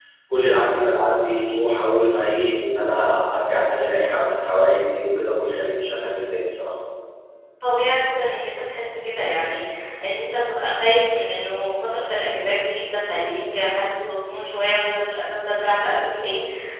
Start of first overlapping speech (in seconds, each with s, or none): none